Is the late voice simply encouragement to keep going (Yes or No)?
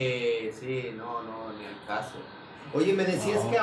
Yes